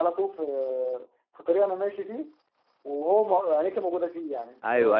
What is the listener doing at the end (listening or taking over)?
taking over